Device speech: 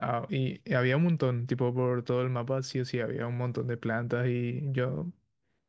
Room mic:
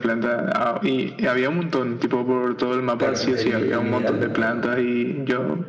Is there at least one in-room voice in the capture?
Yes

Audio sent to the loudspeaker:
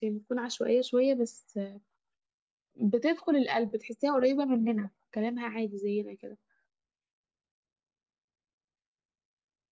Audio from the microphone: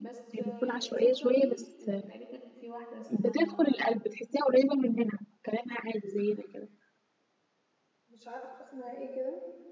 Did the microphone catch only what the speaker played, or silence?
No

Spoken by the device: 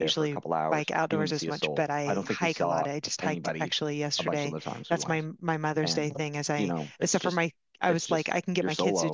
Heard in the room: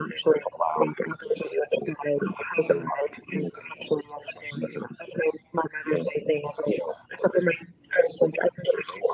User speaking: No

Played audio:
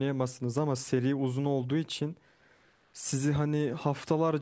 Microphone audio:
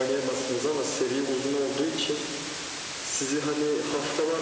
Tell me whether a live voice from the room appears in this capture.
No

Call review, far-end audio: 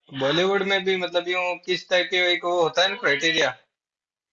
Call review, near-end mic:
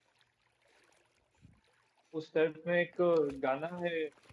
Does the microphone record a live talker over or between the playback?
Yes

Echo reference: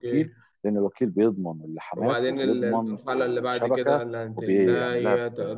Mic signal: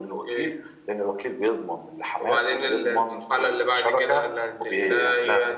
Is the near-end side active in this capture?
No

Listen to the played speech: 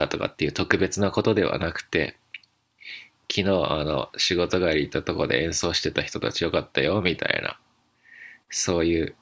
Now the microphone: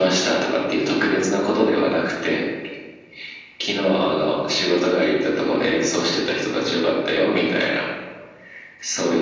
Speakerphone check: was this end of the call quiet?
Yes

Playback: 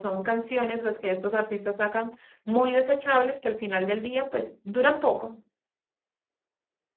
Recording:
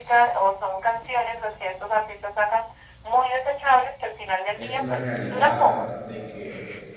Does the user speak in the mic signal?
Yes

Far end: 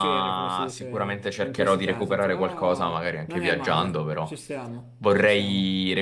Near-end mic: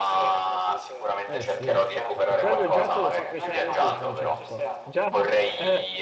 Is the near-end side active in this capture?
Yes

